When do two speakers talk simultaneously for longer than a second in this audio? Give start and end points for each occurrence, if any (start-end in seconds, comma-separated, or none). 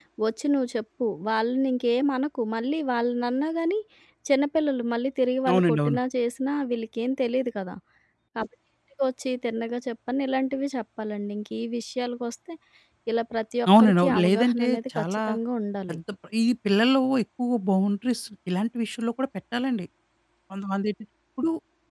13.8-15.2